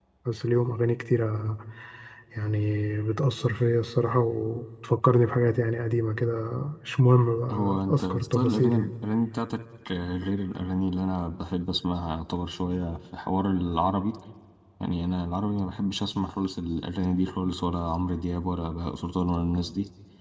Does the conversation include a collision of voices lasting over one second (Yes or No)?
Yes